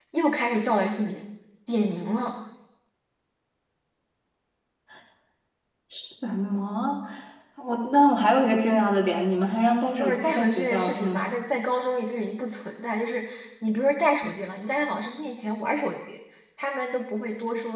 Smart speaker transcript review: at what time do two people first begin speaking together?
10.0 s

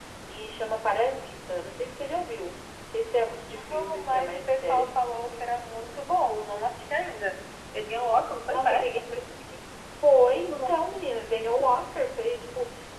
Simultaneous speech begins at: 3.7 s

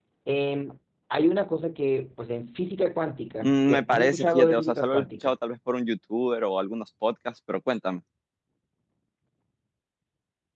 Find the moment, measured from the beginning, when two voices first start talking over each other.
3.4 s

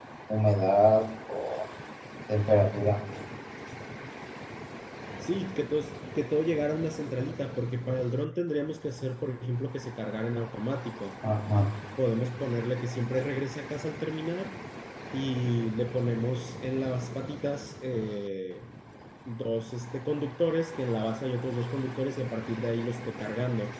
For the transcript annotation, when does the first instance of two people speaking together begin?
none

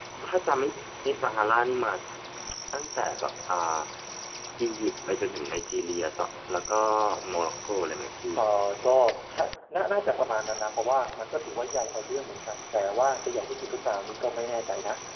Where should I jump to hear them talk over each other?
none

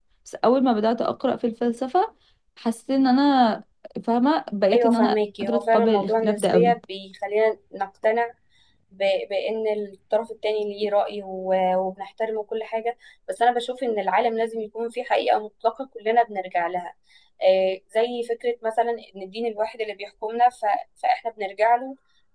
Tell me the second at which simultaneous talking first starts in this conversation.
4.7 s

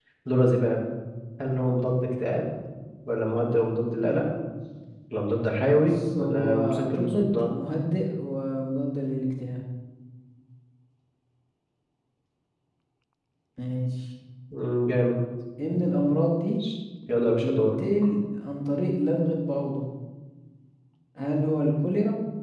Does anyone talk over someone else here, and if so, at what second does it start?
5.7 s

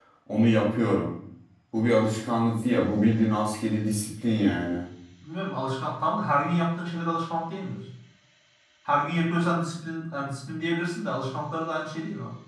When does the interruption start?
none

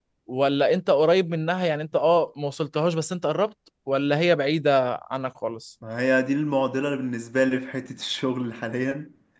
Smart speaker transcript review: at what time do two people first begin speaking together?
none

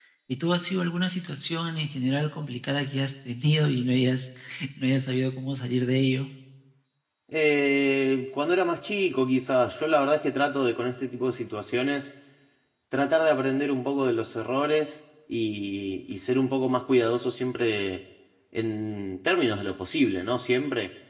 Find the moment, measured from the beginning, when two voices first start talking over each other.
none

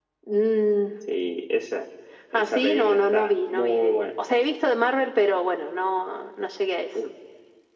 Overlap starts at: 2.3 s

